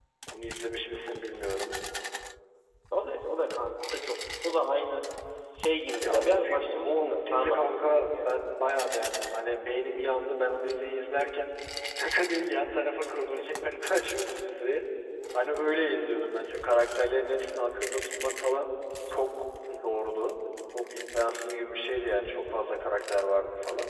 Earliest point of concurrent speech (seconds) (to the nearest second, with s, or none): 6 s